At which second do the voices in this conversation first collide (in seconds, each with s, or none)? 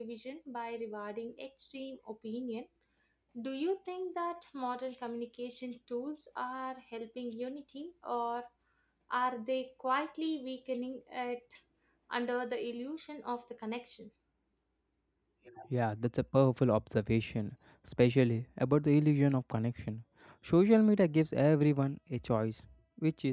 none